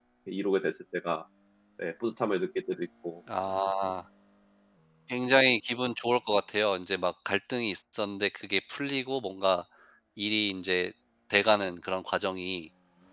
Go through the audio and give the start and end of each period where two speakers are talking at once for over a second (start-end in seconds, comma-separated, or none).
none